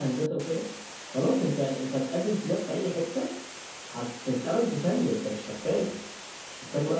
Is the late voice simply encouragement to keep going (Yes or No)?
No